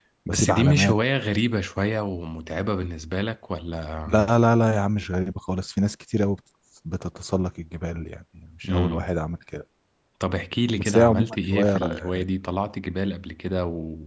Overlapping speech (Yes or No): Yes